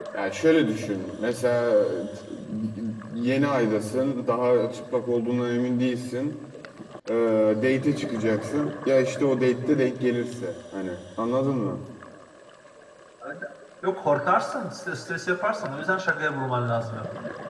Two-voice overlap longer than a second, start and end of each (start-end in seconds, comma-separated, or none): none